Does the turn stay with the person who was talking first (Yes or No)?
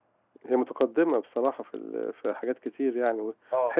Yes